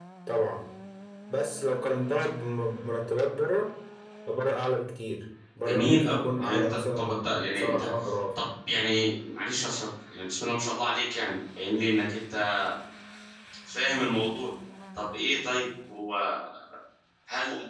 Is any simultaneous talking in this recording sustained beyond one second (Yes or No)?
Yes